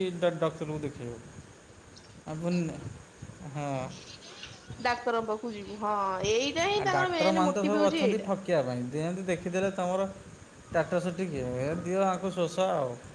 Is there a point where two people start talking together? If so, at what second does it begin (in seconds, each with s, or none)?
6.8 s